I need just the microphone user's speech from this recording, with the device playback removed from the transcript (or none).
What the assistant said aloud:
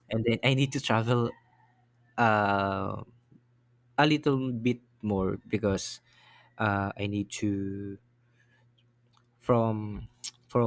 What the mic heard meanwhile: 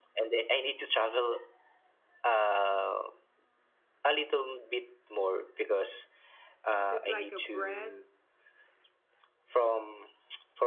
Is it like a bread?